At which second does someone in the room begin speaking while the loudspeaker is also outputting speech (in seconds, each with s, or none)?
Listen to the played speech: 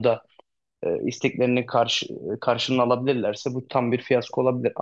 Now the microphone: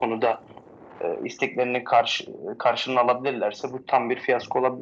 none